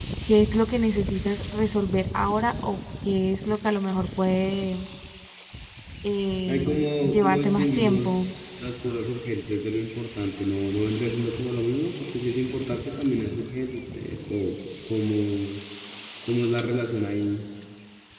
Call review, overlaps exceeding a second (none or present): present